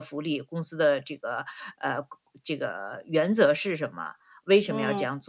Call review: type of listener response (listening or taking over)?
listening